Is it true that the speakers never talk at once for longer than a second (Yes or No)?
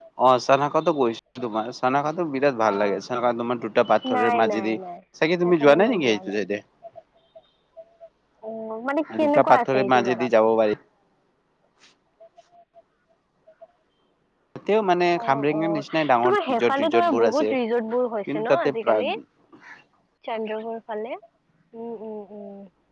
No